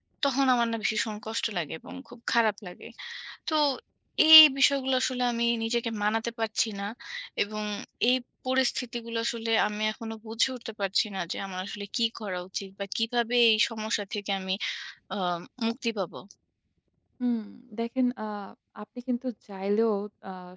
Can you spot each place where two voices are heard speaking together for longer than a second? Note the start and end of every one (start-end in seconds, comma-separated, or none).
none